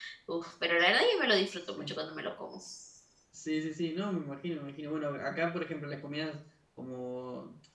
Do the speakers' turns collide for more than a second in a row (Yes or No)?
No